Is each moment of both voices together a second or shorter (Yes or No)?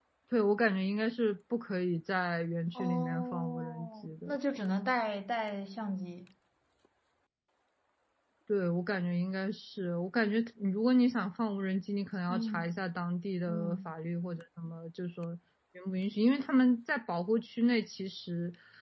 No